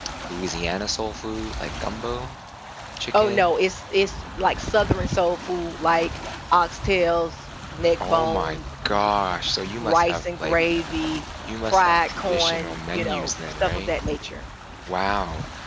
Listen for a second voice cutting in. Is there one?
Yes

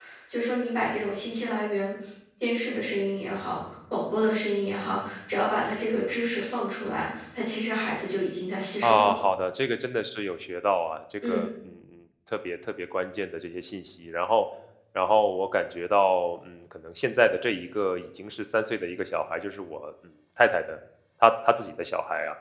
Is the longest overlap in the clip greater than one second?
No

